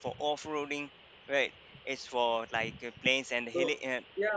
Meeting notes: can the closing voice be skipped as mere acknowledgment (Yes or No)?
No